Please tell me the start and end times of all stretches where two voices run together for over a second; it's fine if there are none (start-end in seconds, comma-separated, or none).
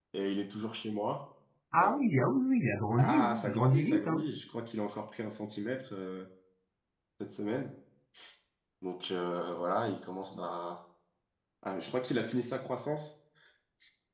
3.0-4.3